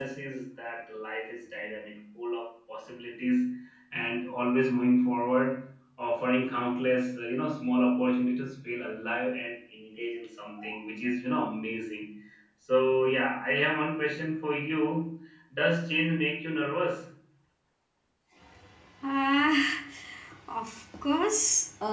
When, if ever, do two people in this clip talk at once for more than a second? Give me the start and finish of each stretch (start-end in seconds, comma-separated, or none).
none